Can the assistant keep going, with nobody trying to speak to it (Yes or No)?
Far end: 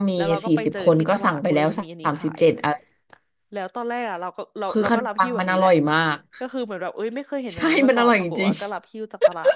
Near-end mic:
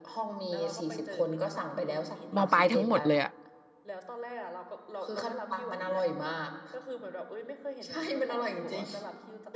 No